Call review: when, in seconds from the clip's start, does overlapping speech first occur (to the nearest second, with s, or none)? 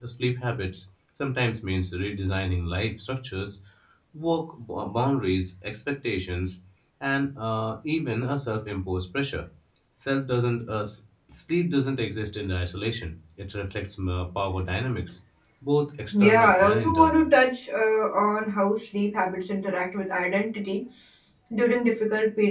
16 s